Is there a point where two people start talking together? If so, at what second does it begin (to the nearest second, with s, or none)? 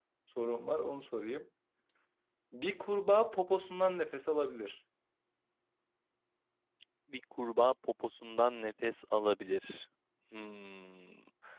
none